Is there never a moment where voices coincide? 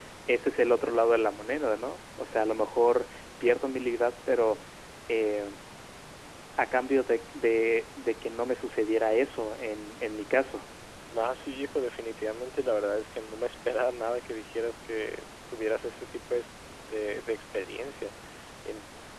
Yes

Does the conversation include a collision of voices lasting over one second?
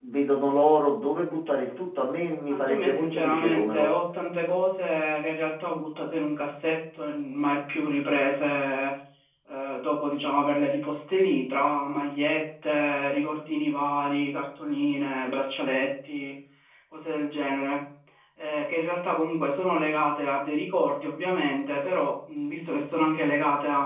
Yes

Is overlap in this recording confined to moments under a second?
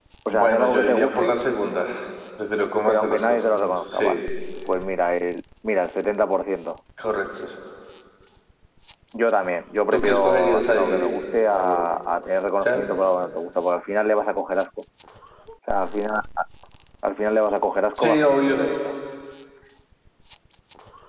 No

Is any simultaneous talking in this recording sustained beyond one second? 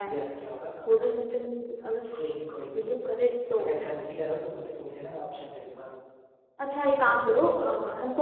No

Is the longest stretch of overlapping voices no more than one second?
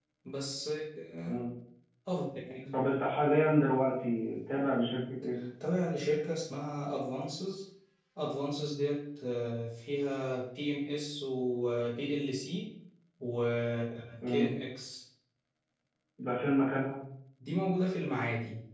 Yes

